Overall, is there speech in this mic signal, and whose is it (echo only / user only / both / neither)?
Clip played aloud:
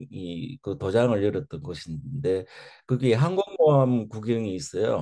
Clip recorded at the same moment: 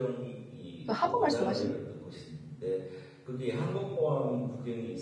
both